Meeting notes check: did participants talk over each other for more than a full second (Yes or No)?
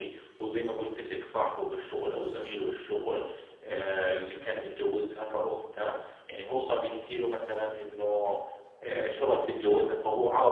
No